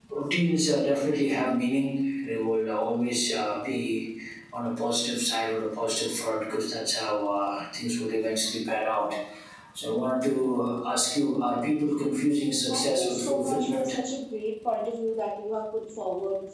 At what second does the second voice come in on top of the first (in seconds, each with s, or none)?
12.7 s